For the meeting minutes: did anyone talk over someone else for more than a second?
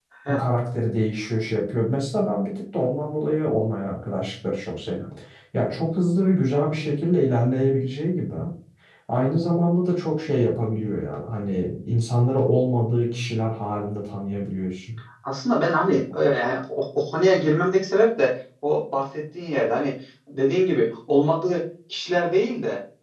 No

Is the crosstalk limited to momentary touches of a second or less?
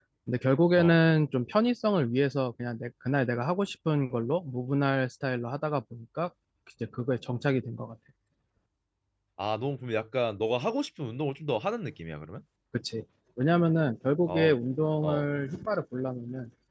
Yes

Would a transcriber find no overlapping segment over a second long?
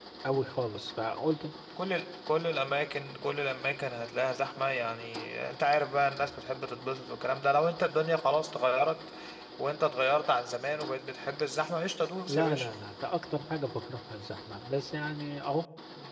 Yes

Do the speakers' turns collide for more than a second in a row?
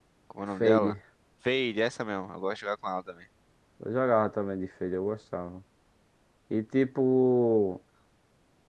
No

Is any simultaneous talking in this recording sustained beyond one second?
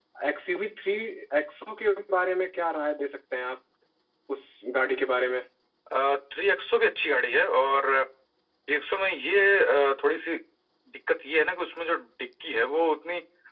No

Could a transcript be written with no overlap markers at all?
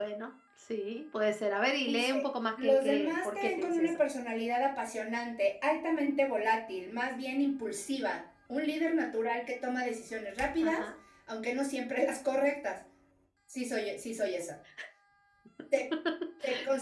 No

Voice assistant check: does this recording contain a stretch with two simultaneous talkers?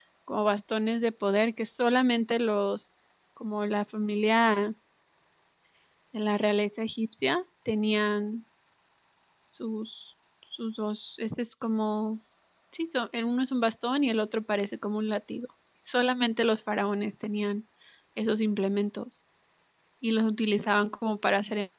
No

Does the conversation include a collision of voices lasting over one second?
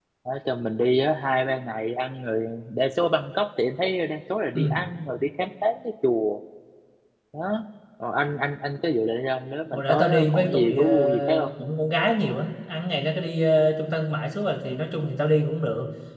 Yes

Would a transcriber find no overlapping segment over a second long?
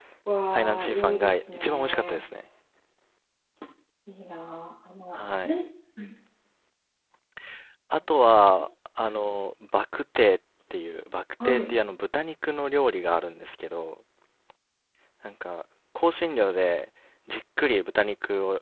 No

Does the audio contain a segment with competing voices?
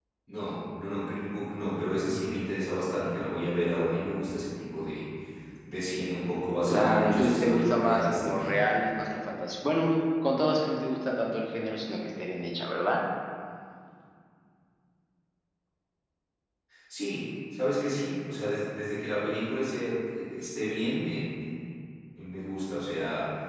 Yes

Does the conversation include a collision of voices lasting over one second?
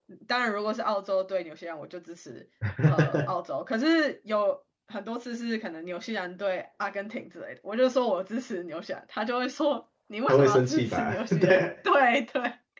Yes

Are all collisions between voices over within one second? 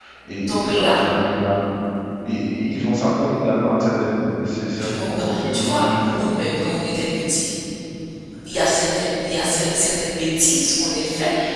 No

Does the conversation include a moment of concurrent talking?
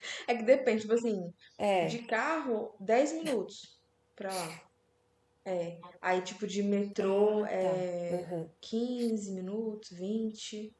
Yes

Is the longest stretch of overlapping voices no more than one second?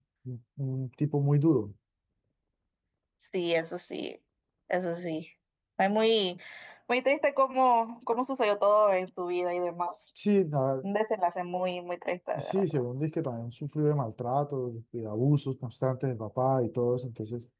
Yes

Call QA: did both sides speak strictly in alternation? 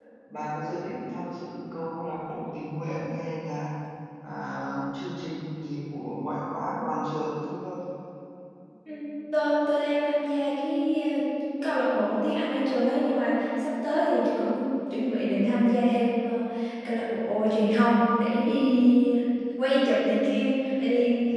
Yes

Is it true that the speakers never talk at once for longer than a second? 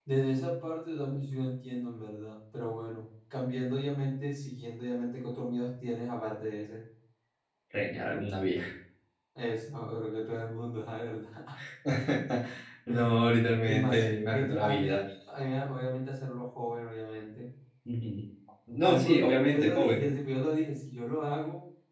No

